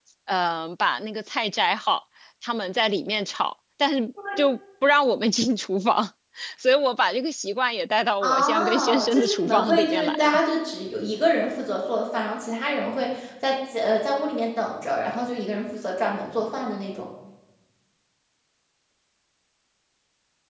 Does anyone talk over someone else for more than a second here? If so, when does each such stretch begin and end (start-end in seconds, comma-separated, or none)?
8.2-10.4